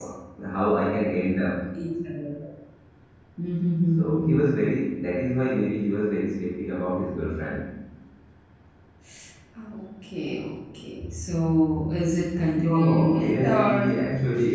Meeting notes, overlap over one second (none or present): present